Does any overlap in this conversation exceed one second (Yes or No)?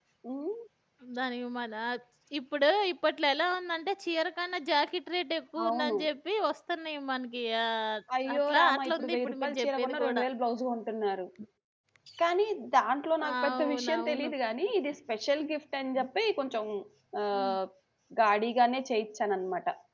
Yes